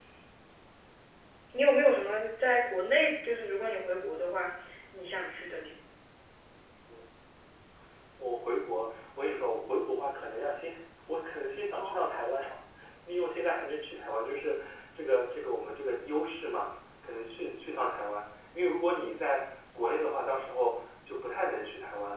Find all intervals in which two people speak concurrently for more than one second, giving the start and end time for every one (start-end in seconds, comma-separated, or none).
none